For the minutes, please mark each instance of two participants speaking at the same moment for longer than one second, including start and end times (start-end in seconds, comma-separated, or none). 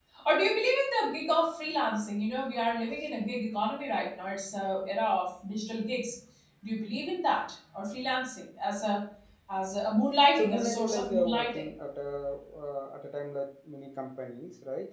10.4-11.7